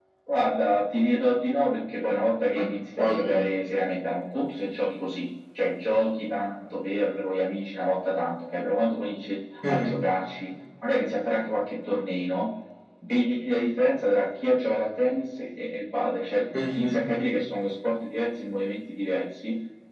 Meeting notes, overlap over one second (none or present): none